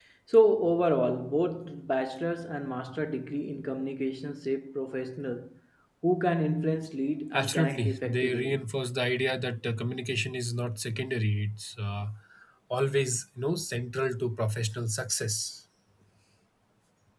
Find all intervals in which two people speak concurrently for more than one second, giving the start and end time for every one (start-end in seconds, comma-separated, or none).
7.3-8.7